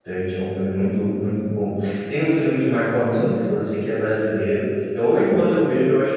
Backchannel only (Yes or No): Yes